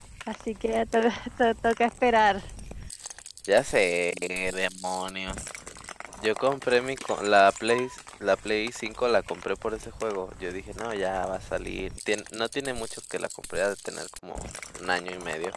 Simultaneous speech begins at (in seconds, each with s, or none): none